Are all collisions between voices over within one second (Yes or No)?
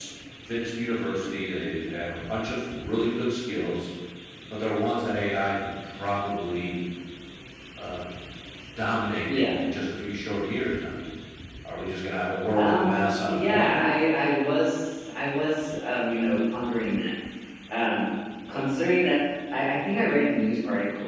No